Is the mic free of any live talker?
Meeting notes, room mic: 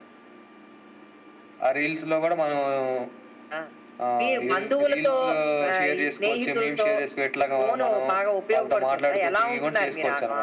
Yes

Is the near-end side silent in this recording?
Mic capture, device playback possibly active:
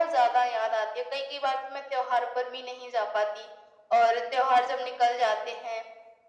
Yes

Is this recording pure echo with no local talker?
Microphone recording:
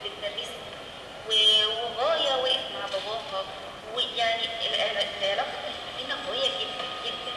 Yes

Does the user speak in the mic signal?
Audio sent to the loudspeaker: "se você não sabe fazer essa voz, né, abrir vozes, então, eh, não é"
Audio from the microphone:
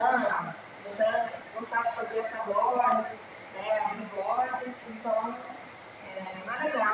No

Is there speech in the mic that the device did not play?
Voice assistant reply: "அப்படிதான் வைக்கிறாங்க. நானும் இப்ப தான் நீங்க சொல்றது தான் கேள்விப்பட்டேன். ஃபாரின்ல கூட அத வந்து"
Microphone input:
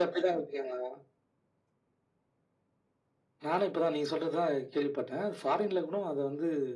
No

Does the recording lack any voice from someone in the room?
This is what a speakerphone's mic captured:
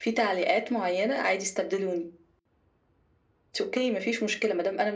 Yes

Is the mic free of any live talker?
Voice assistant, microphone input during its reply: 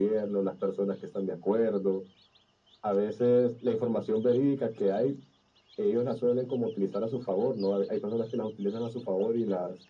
Yes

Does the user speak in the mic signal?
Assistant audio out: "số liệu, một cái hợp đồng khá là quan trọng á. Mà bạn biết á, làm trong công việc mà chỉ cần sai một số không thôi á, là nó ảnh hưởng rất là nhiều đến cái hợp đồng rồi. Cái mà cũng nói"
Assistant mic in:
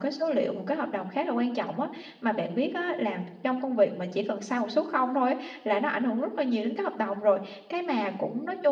No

